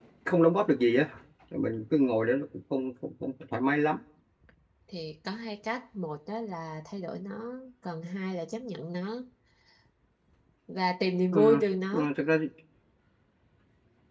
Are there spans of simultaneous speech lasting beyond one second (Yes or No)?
No